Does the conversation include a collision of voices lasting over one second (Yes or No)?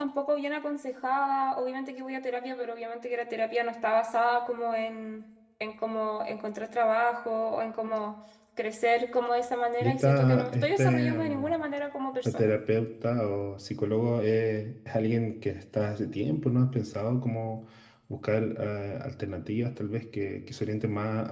Yes